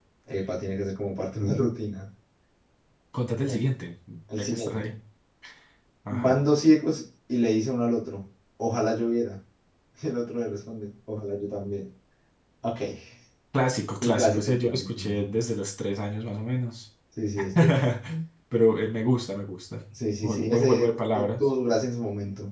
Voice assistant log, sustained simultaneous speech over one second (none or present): present